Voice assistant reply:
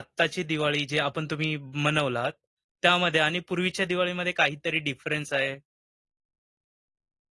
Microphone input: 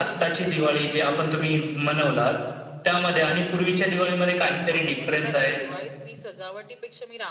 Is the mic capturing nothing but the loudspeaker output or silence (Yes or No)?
No